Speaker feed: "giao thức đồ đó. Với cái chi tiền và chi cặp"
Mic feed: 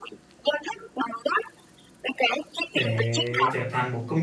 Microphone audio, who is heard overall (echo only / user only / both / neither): both